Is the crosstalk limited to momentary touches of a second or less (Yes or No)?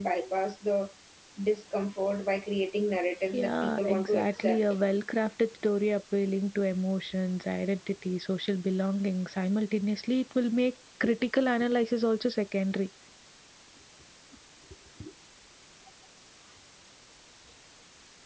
No